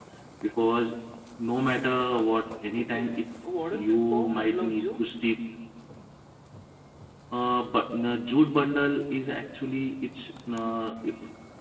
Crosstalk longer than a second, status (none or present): present